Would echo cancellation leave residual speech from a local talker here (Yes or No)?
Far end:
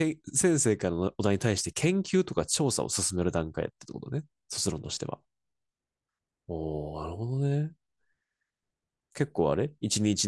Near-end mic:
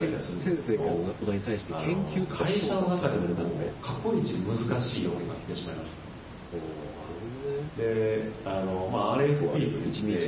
Yes